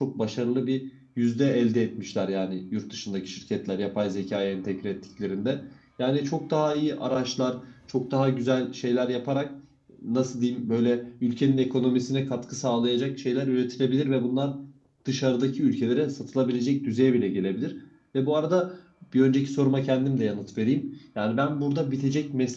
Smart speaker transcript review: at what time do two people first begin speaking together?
none

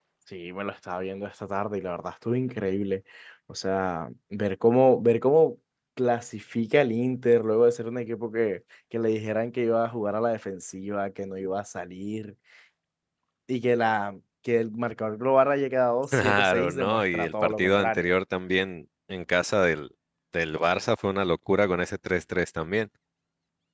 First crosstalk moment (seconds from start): 16 s

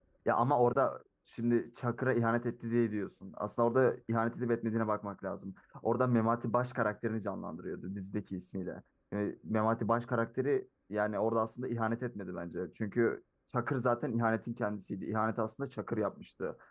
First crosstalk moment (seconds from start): none

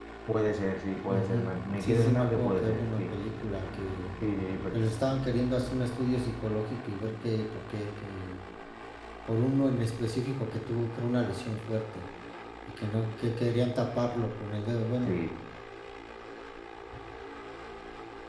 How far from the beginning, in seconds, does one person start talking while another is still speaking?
1 s

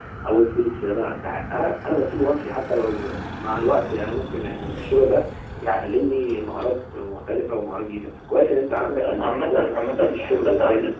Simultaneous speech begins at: 9 s

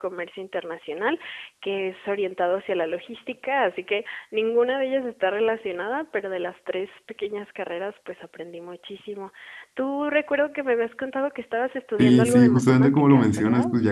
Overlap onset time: 12 s

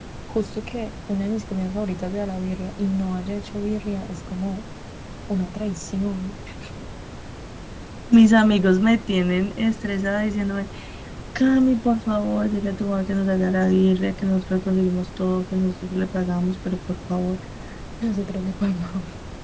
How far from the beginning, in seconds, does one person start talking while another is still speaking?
none

